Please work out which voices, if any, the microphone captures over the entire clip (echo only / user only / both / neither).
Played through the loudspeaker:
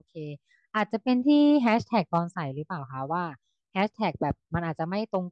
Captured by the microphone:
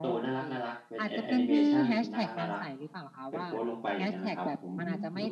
both